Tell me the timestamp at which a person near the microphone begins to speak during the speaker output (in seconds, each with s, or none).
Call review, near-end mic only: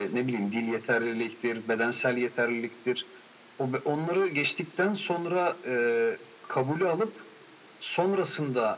none